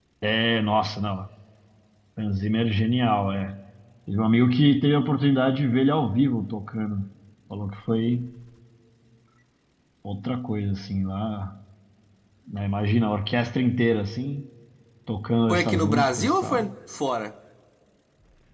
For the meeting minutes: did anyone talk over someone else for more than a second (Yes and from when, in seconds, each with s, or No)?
Yes, from 15.5 s